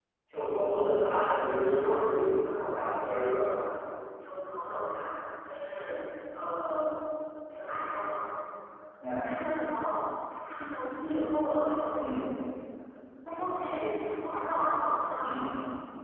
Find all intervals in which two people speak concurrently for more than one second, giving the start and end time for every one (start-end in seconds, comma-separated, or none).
1.7-3.8